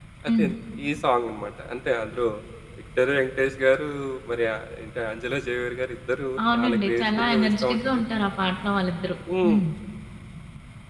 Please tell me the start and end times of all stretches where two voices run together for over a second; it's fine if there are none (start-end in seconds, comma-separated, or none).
6.5-7.8